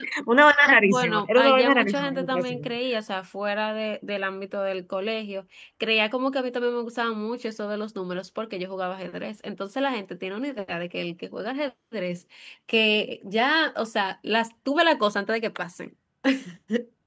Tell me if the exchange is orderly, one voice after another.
No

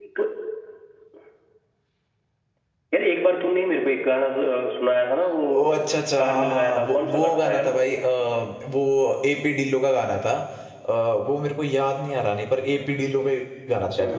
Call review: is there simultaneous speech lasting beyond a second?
Yes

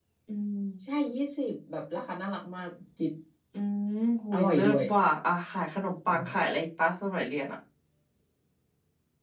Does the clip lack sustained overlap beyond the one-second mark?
Yes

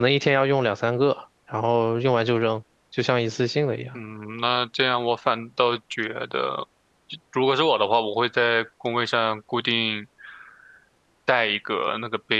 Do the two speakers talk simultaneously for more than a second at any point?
No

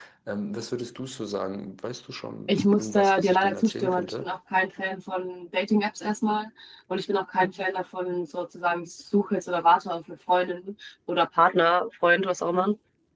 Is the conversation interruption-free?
No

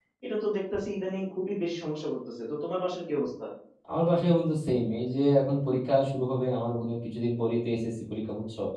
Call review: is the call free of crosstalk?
Yes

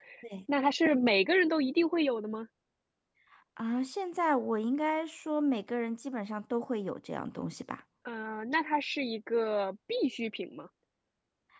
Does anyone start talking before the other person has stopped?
No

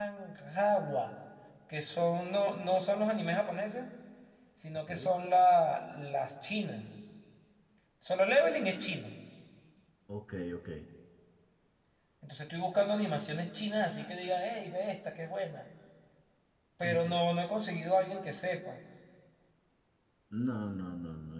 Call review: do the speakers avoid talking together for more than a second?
Yes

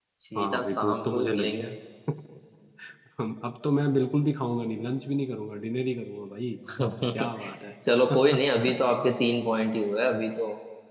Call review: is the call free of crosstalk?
No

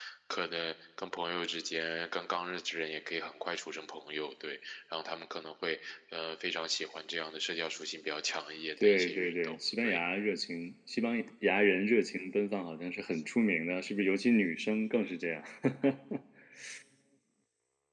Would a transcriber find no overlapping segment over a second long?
No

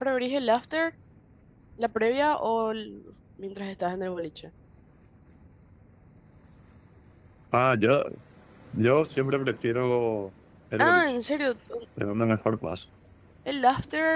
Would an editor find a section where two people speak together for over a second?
No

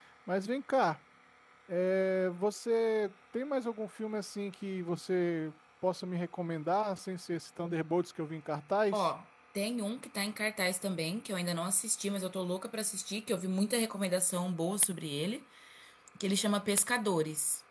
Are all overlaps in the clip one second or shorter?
Yes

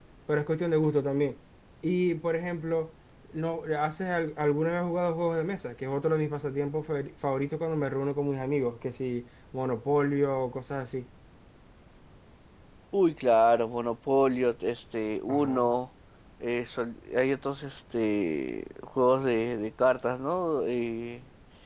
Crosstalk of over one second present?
No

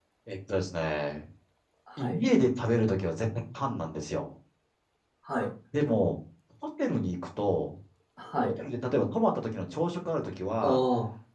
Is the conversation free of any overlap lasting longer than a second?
Yes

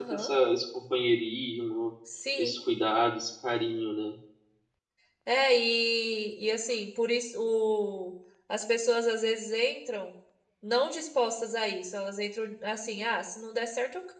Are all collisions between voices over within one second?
Yes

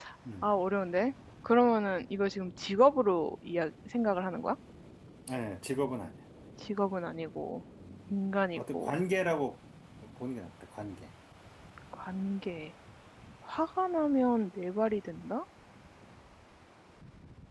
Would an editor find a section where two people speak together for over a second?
No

